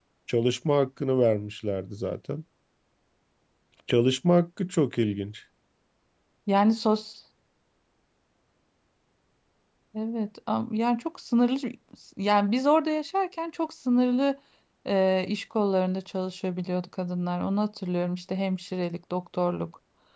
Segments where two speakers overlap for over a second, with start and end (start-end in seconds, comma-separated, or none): none